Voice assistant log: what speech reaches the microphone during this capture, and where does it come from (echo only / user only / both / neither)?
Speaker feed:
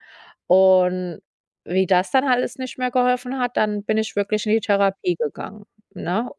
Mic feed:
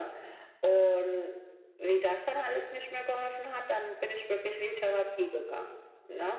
echo only